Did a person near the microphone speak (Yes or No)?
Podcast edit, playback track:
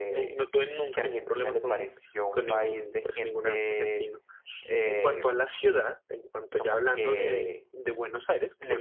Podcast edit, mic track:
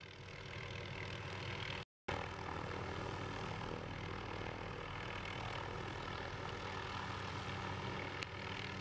No